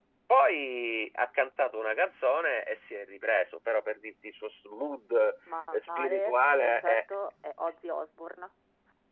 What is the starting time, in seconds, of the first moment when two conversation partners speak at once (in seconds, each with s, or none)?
5.7 s